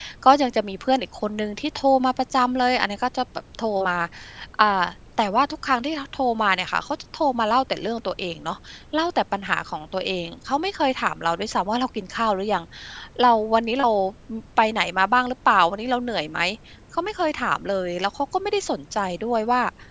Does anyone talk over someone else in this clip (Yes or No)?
No